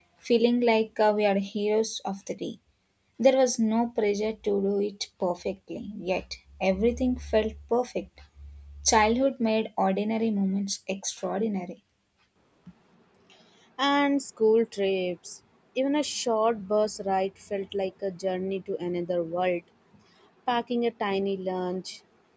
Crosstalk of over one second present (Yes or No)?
No